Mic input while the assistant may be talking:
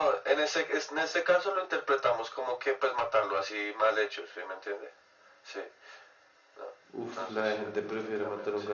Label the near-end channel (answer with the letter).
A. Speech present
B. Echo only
A